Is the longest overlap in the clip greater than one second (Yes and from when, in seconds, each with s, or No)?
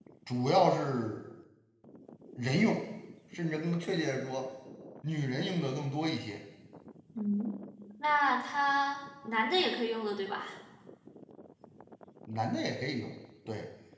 No